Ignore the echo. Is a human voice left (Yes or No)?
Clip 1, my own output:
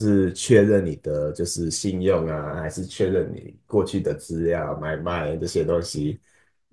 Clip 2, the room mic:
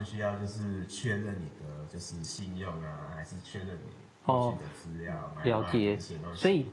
Yes